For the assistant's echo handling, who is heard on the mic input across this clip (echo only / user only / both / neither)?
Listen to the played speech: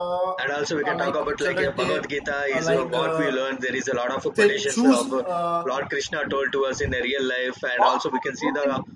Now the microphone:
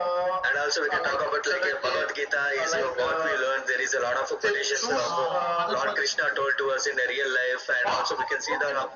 both